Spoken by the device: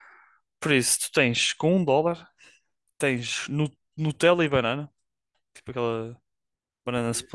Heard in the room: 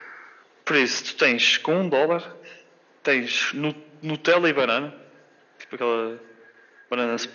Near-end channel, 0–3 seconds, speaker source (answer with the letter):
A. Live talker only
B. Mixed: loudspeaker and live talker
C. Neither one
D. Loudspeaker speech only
D